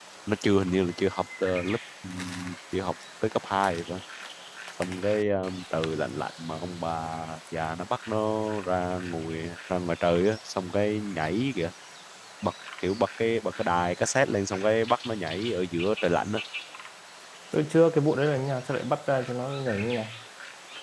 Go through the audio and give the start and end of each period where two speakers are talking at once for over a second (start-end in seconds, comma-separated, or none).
none